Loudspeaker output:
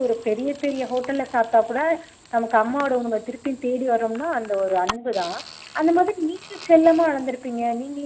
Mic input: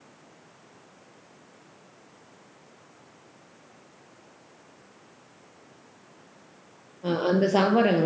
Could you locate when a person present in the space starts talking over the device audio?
7.1 s

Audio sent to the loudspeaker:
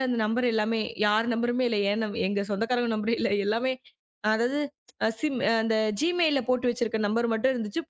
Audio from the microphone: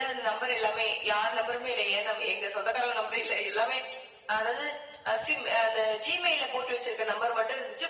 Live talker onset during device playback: none

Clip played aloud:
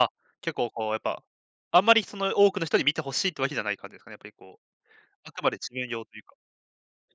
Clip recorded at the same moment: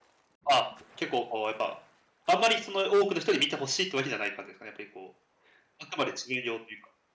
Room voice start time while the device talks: none

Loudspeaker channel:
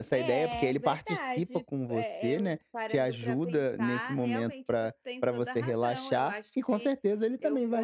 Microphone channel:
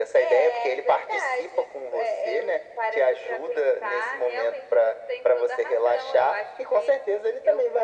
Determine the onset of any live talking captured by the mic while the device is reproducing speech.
none

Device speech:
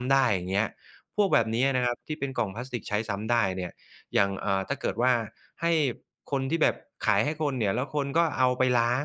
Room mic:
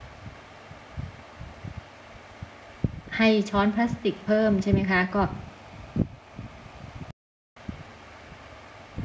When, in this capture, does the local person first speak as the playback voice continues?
3.2 s

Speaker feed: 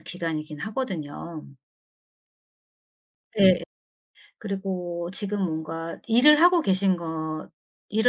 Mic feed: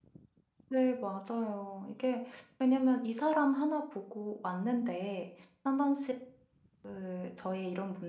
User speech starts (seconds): 0.7 s

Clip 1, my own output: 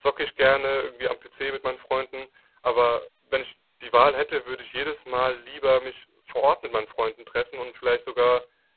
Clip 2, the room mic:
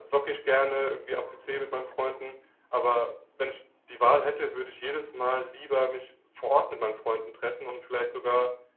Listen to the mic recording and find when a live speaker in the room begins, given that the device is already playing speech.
none

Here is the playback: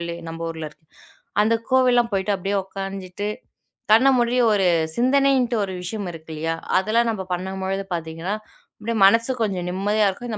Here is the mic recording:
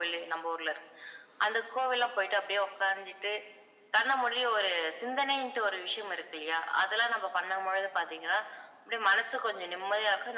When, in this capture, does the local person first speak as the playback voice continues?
none

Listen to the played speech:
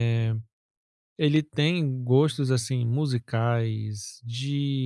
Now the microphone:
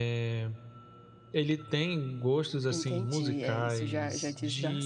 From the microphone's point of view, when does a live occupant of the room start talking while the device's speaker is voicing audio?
2.7 s

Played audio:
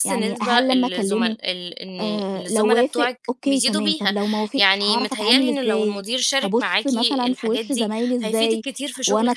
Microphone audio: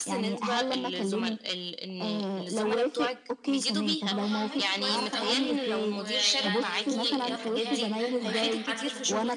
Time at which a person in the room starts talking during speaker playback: 4.1 s

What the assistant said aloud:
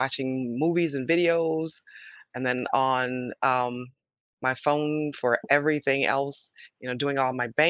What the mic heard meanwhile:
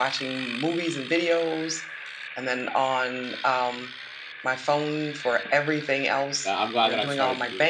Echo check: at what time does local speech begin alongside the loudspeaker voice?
6.2 s

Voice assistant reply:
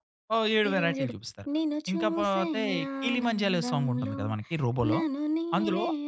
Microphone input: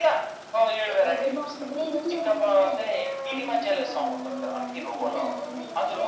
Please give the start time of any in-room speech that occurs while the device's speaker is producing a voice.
1.1 s

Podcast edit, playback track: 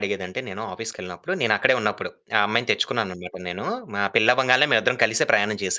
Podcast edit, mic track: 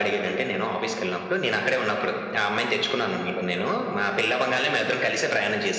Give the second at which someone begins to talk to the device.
none

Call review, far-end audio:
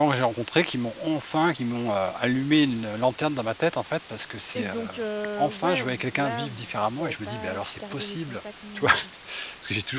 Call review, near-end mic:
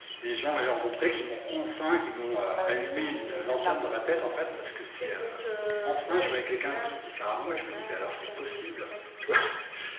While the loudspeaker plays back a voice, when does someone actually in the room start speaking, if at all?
2.6 s

